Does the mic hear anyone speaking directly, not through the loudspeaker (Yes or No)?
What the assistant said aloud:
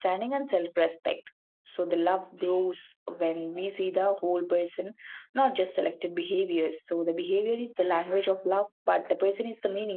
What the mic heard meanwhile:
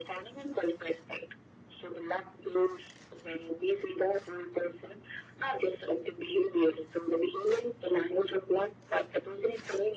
No